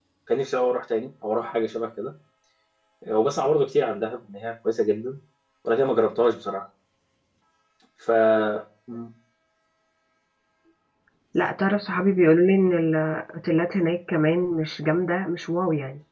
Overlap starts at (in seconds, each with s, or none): none